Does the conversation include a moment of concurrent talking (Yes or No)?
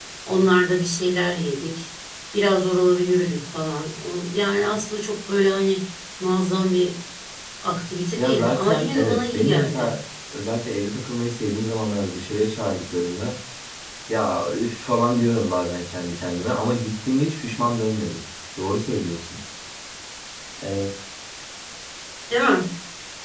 Yes